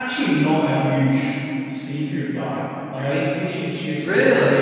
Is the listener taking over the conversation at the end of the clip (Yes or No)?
No